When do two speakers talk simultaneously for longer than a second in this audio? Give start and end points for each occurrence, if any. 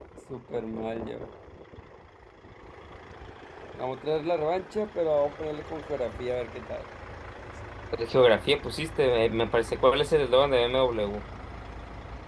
none

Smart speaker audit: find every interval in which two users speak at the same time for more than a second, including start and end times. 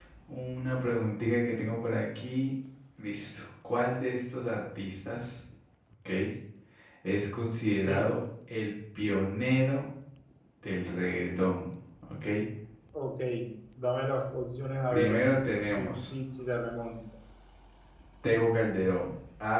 none

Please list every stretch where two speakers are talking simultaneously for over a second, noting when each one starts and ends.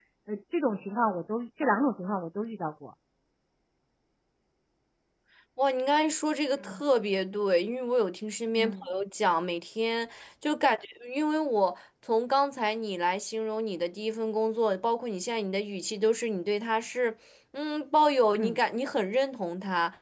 none

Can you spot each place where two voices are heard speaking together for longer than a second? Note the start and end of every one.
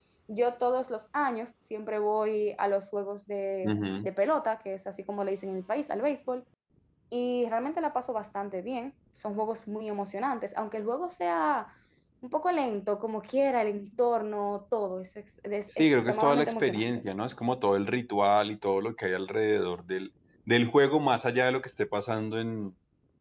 15.8-17.0

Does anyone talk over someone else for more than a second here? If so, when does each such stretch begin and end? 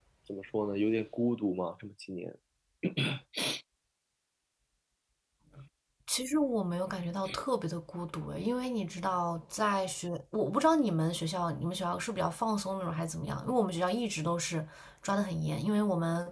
none

